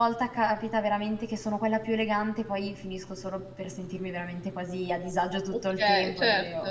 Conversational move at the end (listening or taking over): taking over